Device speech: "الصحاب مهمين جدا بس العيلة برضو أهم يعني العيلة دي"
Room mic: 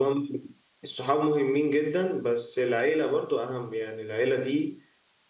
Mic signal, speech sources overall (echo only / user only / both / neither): echo only